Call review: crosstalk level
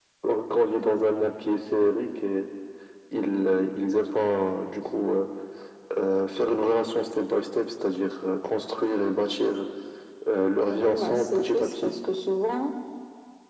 present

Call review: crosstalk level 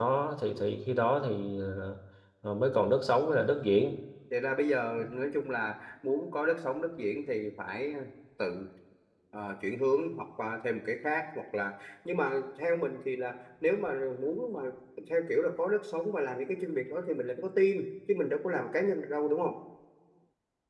none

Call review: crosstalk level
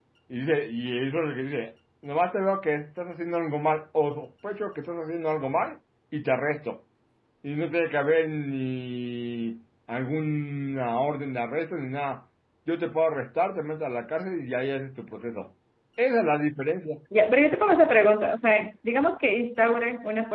none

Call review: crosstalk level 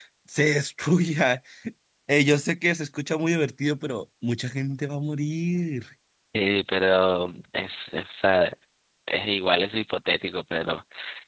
none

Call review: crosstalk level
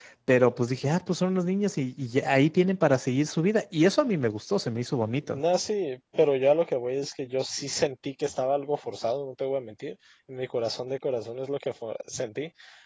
none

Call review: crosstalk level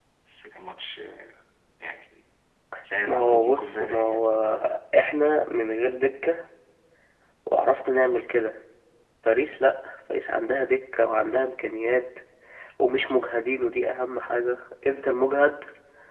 present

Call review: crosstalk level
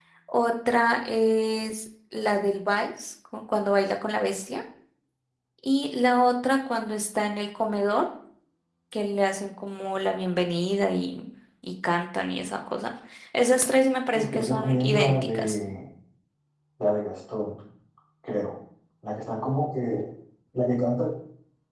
present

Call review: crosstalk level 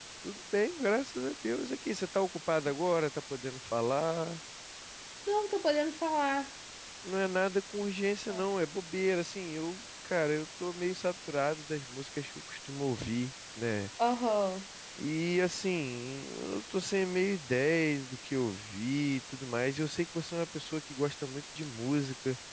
none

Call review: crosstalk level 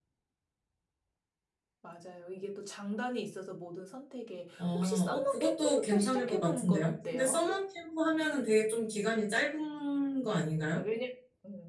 present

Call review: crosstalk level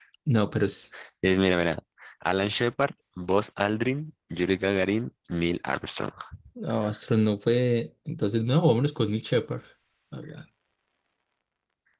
none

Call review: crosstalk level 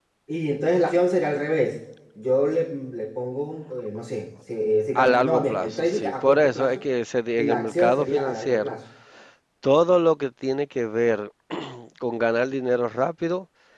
present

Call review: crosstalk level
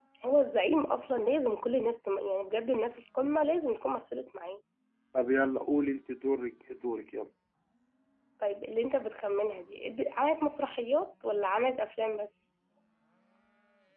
none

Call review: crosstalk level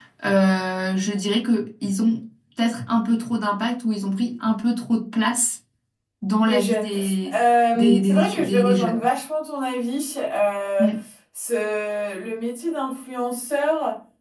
present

